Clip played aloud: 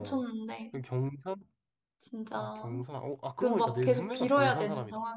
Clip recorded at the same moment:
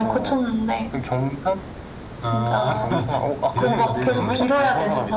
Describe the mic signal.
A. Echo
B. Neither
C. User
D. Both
D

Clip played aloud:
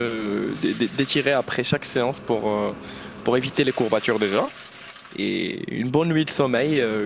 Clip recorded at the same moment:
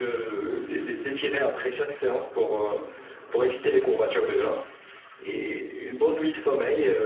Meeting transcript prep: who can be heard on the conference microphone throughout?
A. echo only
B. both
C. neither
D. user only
A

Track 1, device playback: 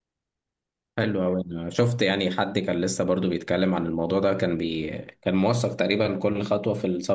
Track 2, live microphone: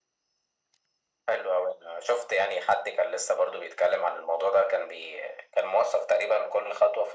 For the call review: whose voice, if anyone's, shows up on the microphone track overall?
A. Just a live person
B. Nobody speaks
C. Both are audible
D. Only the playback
D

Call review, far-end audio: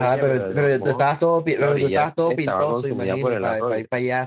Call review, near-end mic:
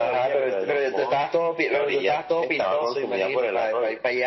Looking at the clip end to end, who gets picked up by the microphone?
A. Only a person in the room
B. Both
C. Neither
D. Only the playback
D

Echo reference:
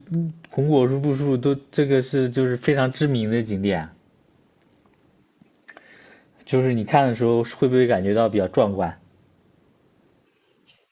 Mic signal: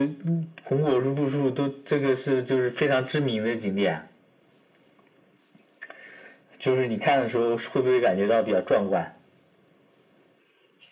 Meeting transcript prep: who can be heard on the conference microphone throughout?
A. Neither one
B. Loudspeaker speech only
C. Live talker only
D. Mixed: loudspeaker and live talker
B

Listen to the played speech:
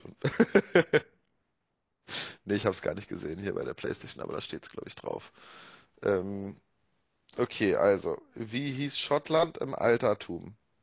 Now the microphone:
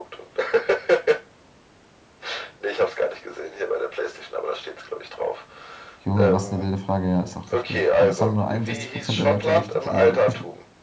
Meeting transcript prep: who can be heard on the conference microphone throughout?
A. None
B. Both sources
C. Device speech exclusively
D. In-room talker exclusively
B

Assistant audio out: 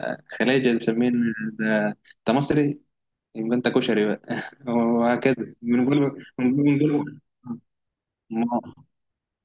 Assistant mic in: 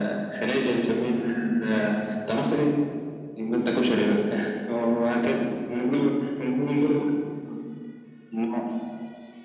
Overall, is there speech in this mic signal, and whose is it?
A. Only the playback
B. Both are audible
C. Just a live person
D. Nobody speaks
A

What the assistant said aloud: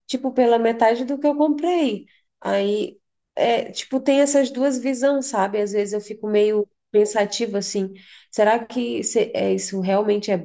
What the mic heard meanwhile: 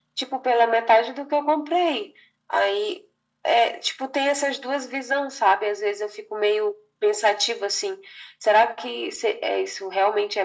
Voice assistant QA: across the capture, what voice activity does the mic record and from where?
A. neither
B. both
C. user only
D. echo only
D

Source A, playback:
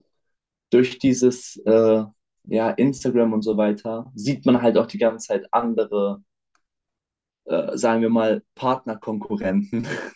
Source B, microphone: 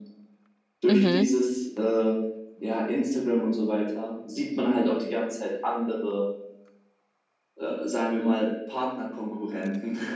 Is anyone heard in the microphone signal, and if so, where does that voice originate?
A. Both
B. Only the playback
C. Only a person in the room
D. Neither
A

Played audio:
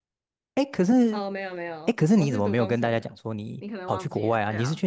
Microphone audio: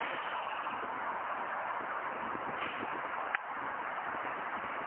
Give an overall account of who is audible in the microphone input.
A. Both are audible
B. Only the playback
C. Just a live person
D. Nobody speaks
D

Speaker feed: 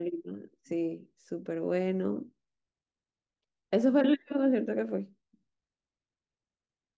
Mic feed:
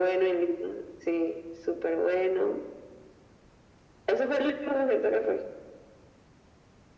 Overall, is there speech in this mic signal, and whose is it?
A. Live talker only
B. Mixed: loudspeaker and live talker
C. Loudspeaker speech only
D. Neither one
C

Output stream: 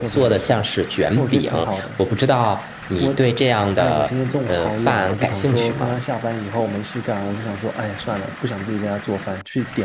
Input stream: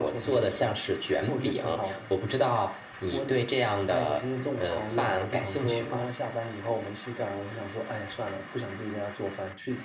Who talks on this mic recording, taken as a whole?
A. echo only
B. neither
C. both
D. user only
A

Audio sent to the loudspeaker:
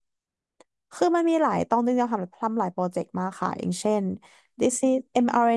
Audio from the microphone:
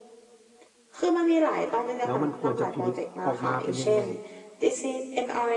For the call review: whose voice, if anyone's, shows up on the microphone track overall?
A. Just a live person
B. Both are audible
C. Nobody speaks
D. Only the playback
B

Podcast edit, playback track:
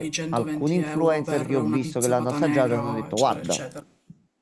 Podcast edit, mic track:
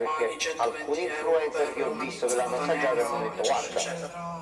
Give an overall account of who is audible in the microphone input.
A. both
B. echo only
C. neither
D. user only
A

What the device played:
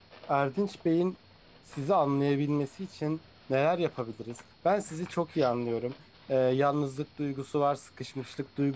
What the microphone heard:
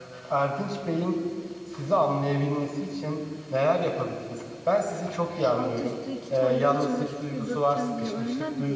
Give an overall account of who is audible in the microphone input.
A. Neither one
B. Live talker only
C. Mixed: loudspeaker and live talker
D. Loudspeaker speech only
C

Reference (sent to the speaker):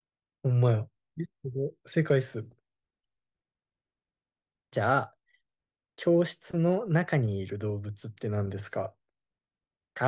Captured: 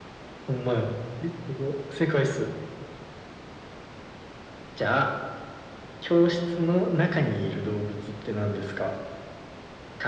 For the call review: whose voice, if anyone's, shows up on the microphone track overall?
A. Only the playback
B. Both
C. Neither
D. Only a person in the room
A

